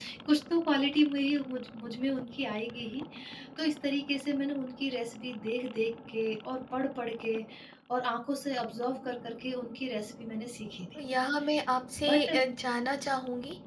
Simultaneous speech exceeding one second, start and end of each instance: none

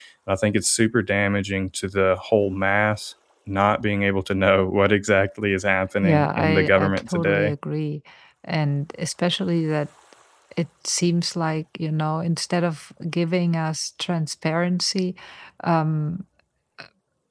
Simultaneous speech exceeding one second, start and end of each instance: 6.0-7.5

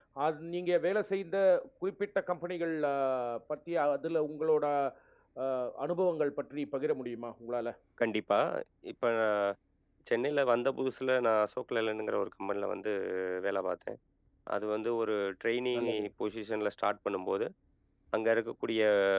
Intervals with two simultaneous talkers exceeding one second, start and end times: none

